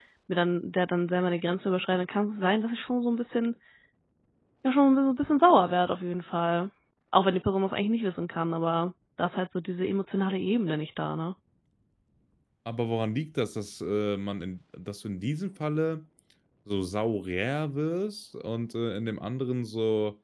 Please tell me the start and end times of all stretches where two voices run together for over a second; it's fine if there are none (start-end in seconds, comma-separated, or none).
none